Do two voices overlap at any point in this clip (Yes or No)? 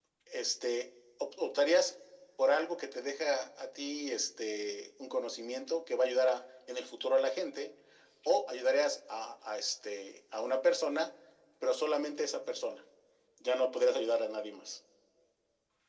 No